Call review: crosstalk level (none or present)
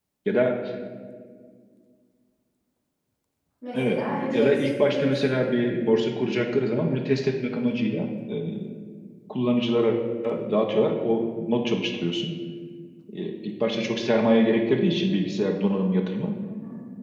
present